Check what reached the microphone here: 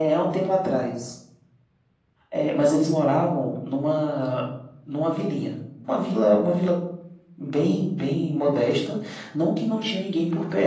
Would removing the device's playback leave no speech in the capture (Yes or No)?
Yes